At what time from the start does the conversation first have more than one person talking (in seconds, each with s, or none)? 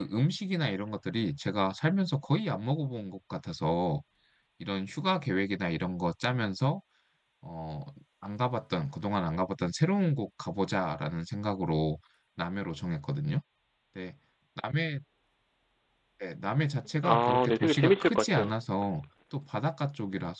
17.0 s